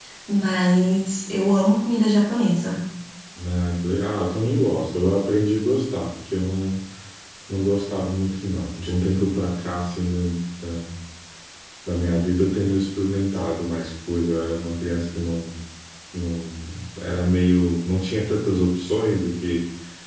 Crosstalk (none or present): none